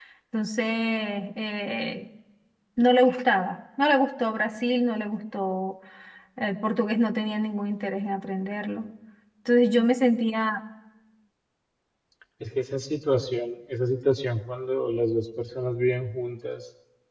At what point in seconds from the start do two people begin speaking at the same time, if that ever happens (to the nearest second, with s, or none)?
none